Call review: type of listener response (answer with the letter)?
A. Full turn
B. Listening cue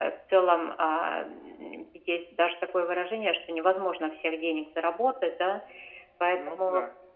B